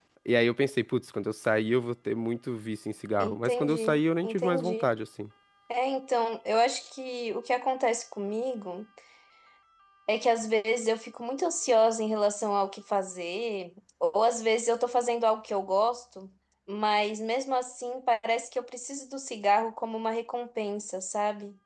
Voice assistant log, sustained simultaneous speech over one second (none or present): present